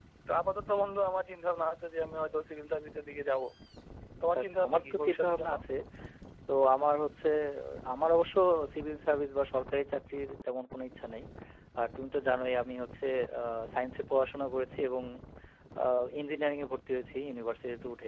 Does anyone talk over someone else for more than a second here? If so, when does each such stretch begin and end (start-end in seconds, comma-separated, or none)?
4.3-5.5